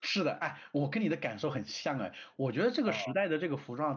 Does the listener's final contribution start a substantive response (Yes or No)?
No